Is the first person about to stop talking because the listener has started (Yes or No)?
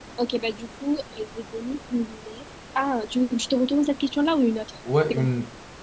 Yes